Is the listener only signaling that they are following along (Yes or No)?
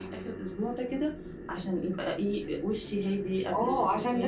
No